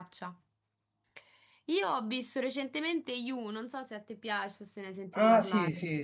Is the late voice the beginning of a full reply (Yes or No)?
Yes